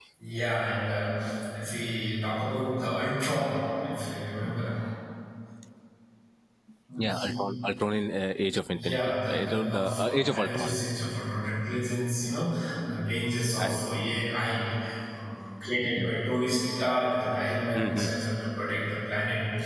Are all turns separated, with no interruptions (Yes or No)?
No